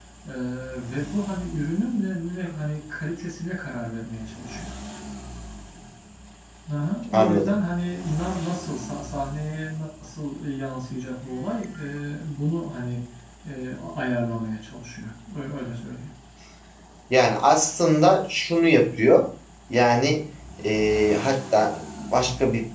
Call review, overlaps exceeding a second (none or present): none